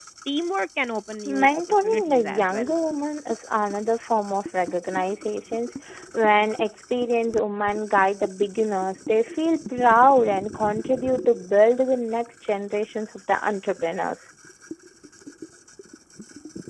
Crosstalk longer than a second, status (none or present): present